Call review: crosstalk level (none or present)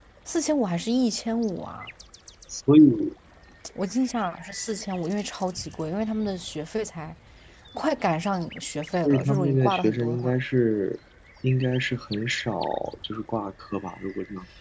present